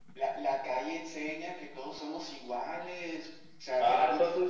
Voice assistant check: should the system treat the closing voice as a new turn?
Yes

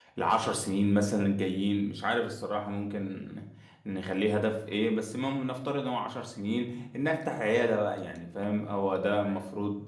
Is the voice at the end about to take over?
No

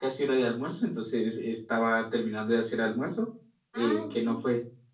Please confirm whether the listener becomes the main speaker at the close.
No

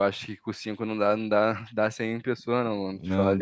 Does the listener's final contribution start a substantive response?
Yes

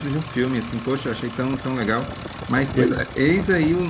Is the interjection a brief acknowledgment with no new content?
Yes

